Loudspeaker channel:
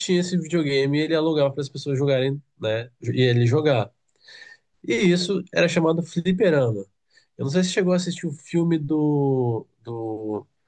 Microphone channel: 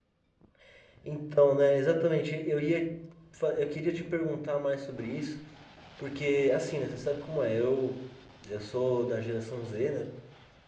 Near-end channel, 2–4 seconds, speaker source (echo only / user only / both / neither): user only